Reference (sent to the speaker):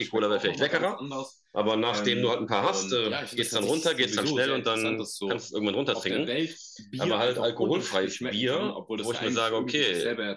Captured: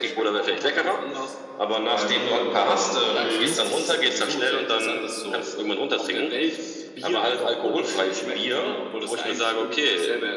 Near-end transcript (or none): mhm